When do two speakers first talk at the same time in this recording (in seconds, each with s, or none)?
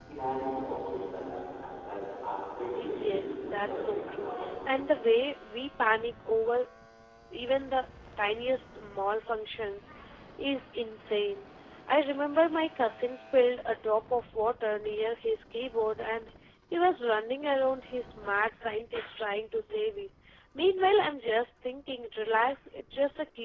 2.8 s